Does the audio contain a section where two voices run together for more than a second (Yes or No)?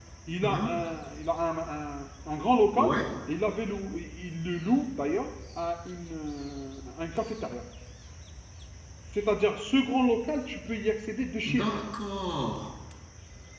No